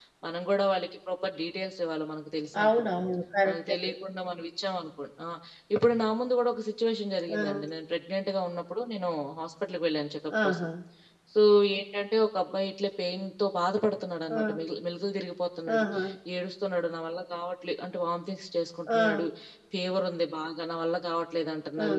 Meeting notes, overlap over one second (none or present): none